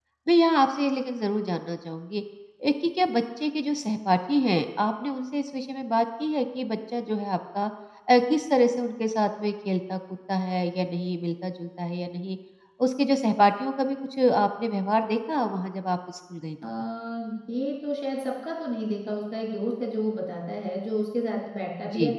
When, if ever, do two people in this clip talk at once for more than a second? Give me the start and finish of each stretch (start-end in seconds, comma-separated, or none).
none